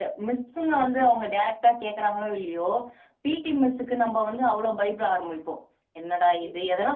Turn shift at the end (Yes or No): No